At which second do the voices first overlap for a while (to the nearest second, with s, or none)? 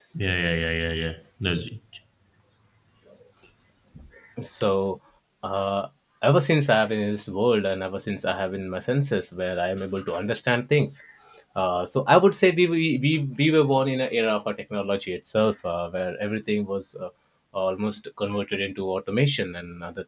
none